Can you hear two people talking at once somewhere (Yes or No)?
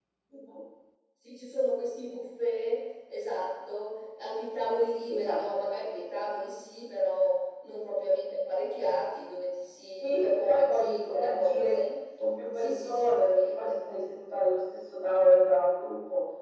Yes